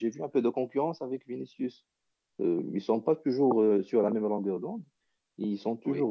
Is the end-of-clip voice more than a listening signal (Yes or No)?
No